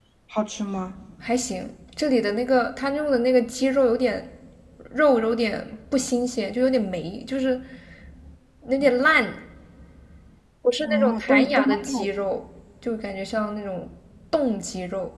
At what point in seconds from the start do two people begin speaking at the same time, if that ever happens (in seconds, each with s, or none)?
10.9 s